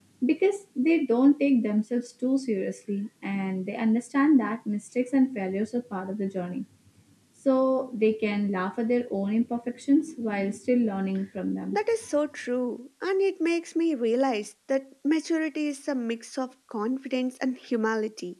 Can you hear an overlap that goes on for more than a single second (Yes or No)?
No